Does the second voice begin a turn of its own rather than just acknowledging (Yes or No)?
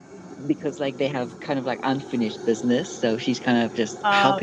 Yes